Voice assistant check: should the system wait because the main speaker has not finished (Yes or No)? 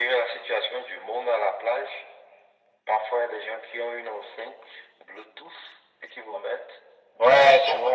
No